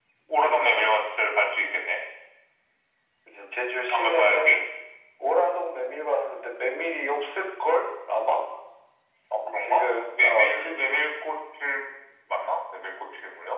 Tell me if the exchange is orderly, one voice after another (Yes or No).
No